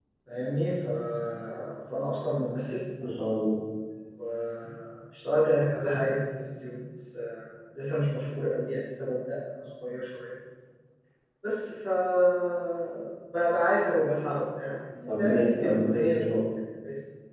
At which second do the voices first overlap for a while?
15.1 s

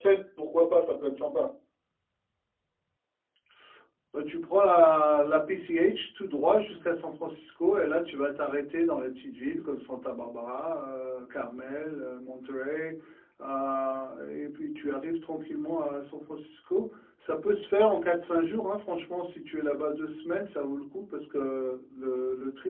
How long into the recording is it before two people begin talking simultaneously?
none

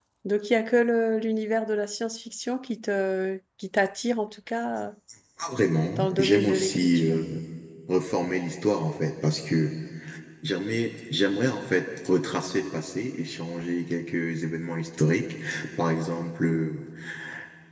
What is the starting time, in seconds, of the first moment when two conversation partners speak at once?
6.0 s

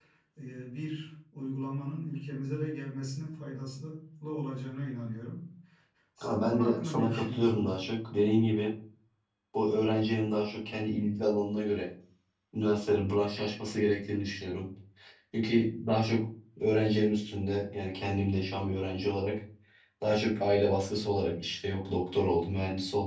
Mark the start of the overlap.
6.2 s

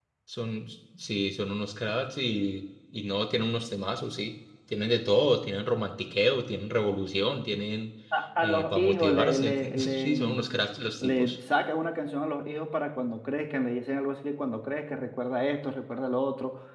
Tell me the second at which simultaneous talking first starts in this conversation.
8.7 s

